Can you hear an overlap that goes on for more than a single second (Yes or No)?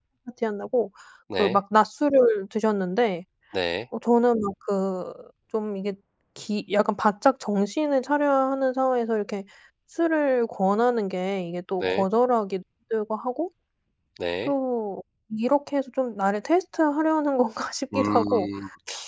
No